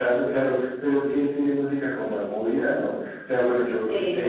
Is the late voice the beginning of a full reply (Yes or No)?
No